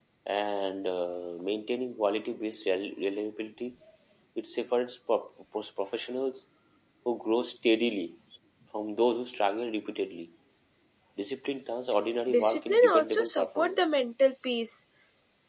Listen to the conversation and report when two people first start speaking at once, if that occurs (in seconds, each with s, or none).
12.3 s